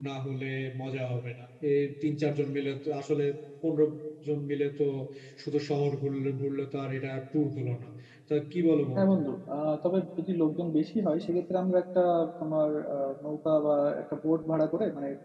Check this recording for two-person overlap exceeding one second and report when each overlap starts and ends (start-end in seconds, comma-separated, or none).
none